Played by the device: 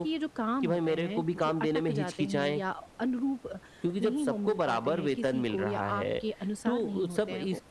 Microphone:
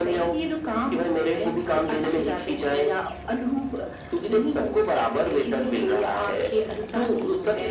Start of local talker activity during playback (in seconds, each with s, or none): none